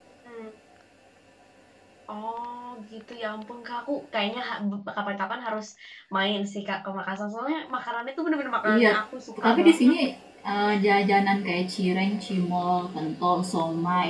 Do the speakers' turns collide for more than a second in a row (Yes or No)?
No